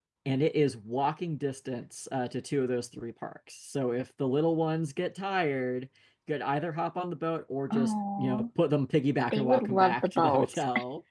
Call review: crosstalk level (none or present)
present